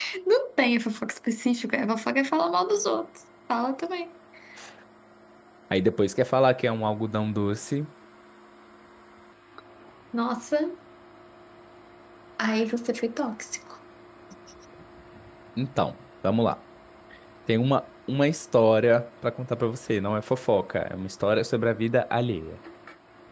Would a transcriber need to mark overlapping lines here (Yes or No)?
No